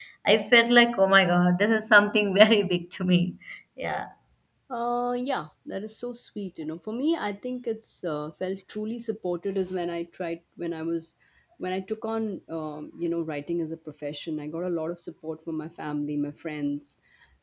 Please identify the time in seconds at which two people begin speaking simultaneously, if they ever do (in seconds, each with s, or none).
none